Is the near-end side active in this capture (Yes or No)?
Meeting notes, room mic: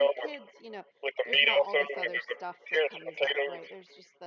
Yes